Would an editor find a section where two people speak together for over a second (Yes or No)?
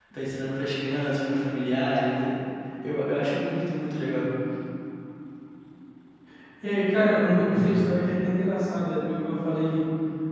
No